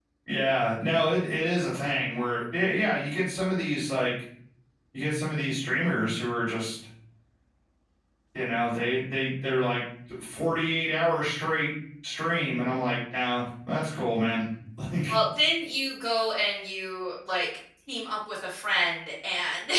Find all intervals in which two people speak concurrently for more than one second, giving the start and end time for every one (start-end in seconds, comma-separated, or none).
none